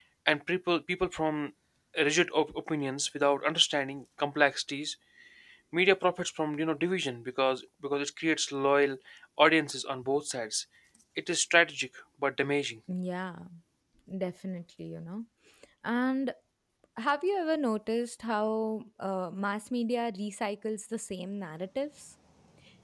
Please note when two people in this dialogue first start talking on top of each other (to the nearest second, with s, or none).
none